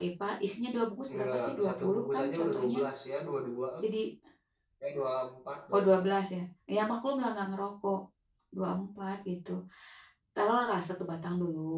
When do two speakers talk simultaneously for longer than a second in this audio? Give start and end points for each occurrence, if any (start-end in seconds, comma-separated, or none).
1.1-2.8